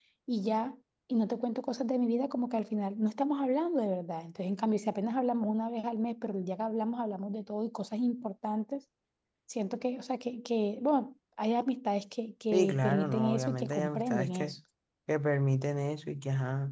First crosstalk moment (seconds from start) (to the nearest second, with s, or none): 13 s